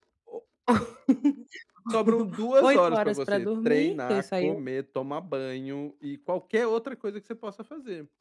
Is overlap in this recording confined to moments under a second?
No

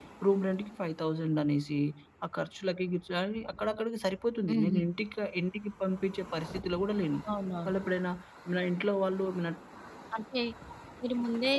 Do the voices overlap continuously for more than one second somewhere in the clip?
No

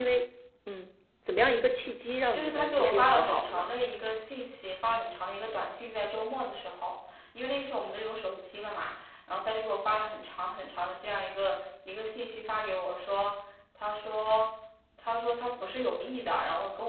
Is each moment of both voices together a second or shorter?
No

